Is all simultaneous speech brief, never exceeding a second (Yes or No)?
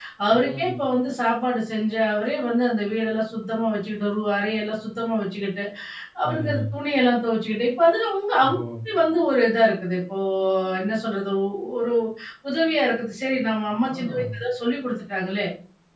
Yes